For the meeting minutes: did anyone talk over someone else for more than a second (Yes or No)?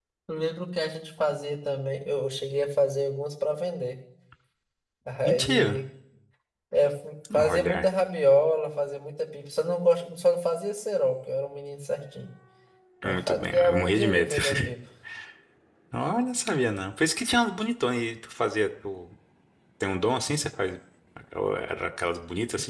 Yes